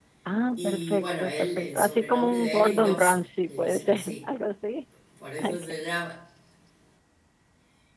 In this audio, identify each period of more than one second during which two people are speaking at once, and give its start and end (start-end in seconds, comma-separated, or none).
0.6-4.2